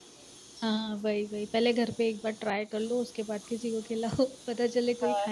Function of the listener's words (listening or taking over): taking over